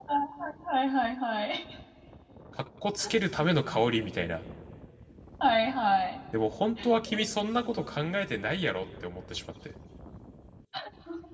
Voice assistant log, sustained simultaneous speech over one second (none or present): none